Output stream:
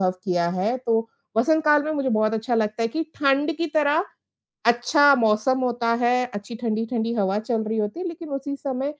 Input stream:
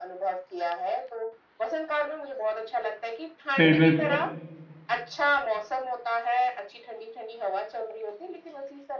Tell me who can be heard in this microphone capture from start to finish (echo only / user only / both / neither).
both